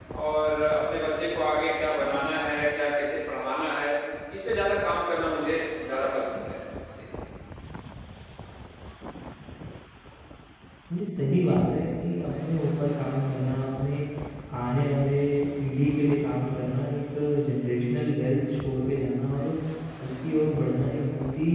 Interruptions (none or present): none